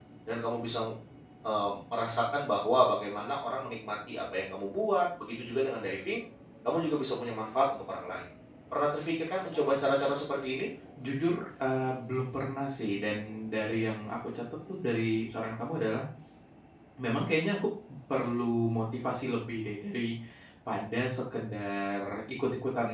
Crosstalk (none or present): none